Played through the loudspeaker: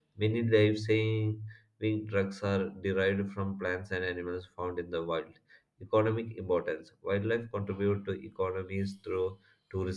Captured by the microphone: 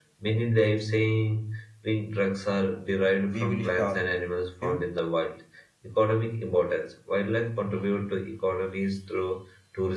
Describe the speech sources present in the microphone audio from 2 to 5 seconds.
both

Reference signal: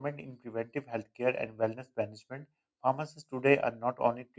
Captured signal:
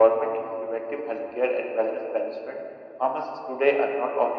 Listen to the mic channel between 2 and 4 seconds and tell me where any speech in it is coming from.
echo only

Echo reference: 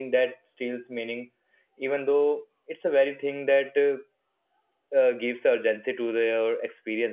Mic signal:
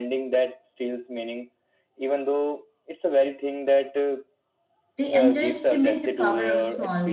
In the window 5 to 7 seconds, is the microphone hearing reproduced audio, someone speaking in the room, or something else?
both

